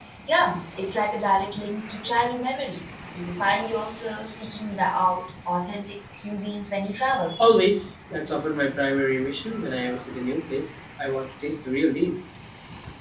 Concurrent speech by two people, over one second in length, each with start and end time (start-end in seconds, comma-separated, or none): none